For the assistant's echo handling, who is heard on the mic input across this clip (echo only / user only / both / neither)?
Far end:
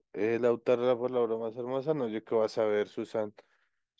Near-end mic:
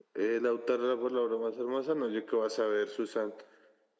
echo only